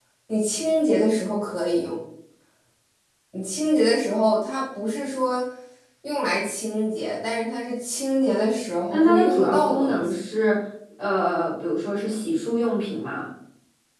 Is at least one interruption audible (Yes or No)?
Yes